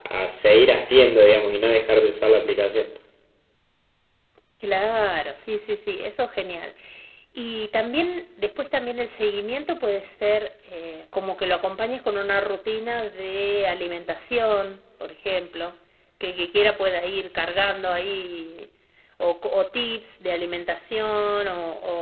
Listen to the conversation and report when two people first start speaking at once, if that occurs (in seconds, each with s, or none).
none